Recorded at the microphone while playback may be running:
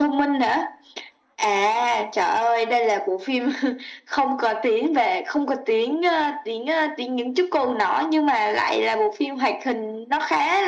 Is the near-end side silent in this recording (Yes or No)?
Yes